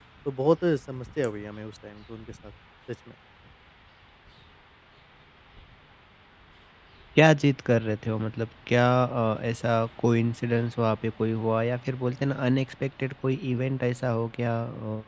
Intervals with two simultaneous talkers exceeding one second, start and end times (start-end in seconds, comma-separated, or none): none